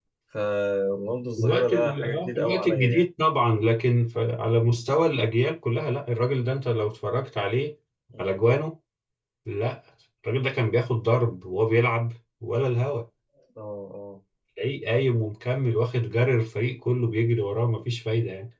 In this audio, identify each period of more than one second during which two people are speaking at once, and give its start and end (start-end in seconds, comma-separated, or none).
1.4-3.0